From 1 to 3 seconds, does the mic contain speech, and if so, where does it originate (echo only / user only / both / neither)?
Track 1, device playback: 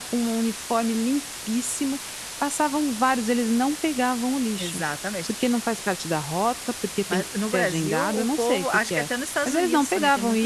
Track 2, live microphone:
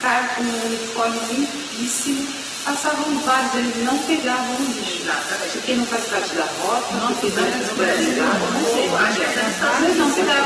echo only